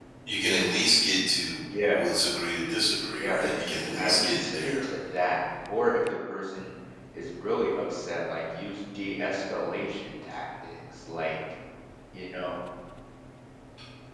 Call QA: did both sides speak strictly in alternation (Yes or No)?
No